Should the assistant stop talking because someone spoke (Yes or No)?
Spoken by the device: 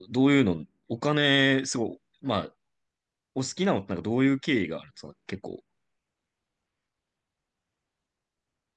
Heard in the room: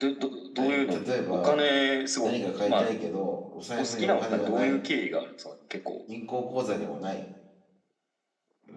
Yes